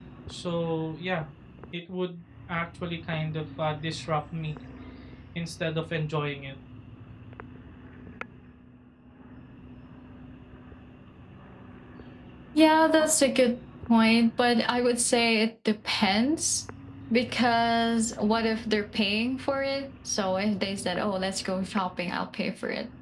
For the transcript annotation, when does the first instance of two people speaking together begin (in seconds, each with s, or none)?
none